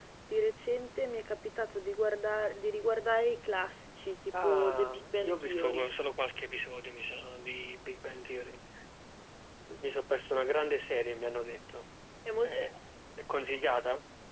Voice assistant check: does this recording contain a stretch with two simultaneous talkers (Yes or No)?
Yes